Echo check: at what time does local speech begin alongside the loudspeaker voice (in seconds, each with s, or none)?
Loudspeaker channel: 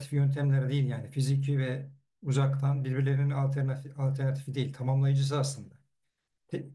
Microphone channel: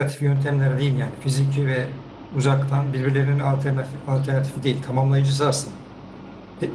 none